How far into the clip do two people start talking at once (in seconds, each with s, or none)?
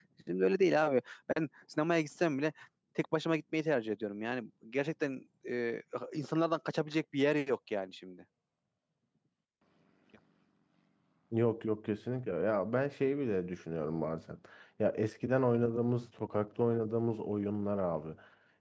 none